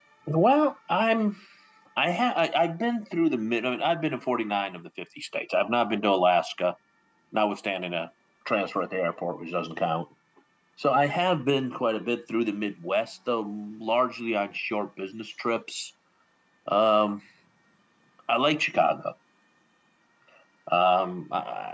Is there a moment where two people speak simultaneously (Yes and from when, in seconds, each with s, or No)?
No